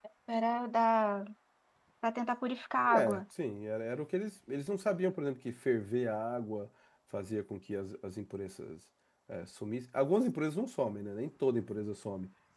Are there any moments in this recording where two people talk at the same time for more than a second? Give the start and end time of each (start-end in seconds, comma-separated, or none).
none